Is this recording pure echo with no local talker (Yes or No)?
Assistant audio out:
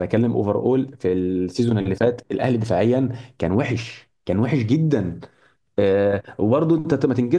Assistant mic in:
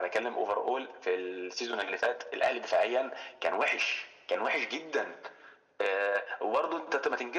Yes